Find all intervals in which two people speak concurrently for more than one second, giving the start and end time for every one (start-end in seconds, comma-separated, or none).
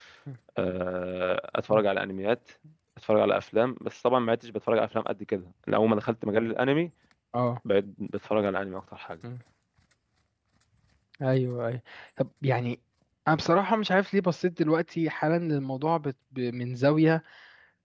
none